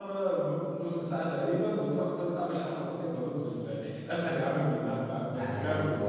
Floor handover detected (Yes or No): Yes